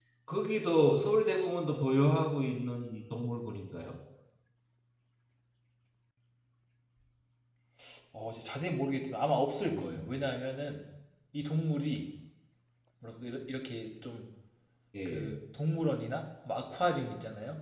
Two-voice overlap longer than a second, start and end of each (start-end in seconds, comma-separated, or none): none